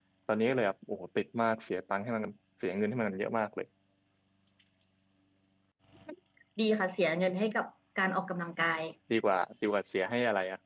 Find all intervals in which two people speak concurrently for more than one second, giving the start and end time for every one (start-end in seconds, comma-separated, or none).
none